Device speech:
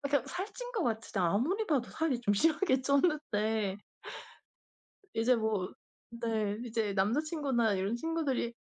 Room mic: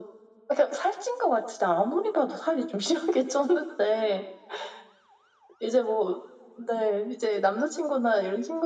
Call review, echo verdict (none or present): present